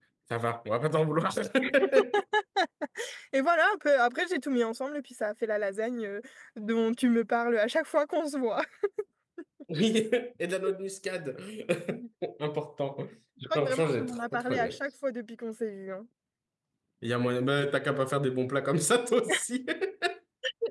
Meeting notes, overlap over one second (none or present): present